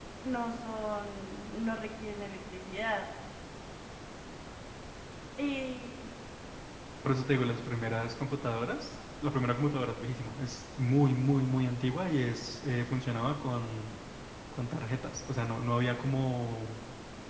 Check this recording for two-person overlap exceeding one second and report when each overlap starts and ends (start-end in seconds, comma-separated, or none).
none